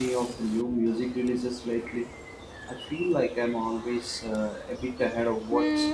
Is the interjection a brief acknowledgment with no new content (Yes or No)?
No